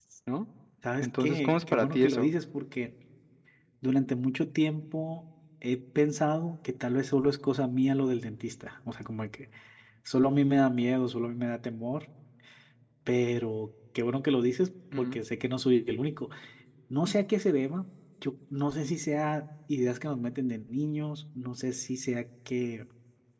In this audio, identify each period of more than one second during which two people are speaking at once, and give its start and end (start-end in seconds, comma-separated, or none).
1.0-2.3